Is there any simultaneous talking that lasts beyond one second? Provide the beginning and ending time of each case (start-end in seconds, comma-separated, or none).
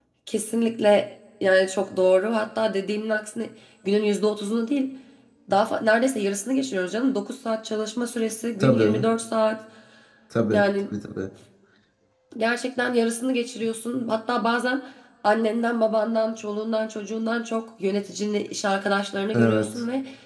none